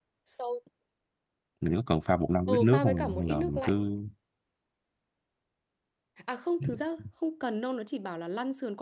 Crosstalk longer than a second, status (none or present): present